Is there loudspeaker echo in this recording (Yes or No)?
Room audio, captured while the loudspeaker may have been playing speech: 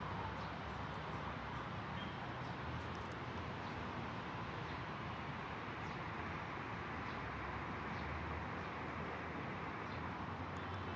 No